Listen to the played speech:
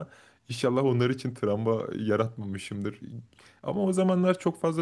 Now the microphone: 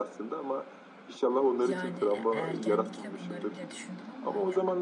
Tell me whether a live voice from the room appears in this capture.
Yes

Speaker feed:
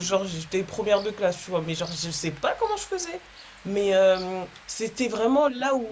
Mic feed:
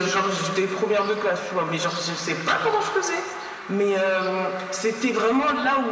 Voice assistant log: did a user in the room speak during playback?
No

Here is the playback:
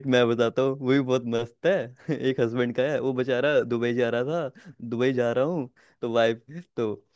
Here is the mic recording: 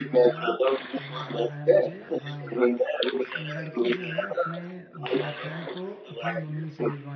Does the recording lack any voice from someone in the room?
No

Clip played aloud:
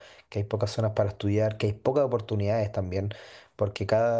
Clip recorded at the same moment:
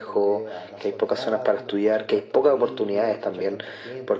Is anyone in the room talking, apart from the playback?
Yes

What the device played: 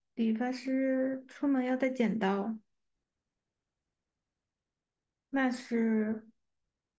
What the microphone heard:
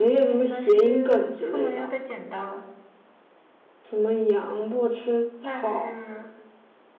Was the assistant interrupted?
Yes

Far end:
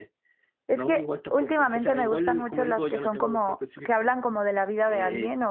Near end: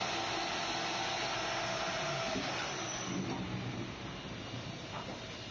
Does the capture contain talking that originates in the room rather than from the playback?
No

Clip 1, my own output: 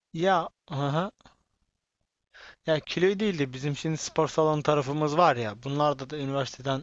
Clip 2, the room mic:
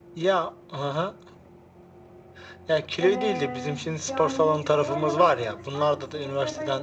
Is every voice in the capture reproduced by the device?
No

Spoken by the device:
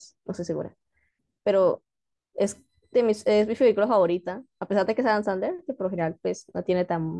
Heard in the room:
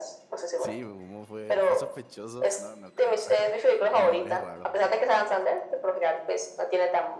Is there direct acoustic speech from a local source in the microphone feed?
Yes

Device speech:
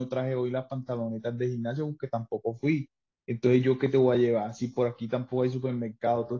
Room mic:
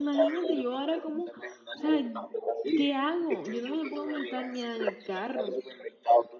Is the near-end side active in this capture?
Yes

